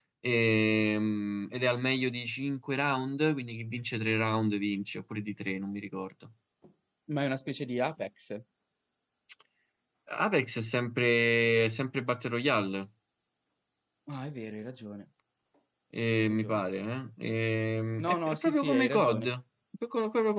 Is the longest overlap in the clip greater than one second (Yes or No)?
Yes